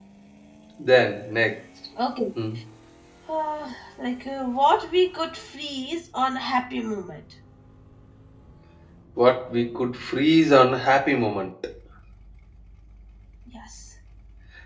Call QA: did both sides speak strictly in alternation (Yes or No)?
Yes